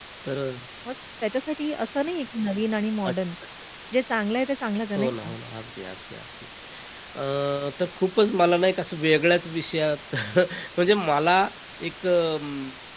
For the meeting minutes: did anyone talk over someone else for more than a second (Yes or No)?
No